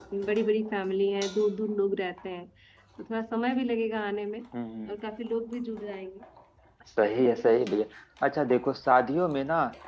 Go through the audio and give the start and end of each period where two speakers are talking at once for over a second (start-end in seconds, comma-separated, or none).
none